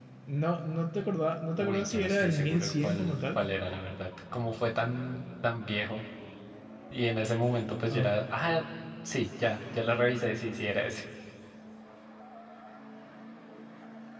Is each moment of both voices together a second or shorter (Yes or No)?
No